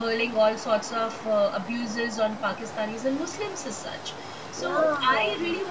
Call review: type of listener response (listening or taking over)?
listening